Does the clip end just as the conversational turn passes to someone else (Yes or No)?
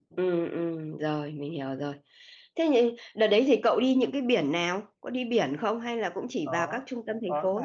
Yes